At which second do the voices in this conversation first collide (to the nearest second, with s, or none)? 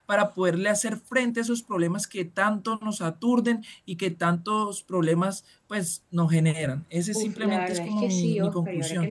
7 s